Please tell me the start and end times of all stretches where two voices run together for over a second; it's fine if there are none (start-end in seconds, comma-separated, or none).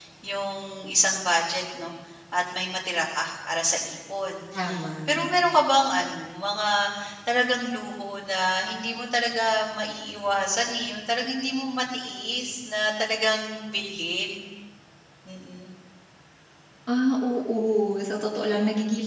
none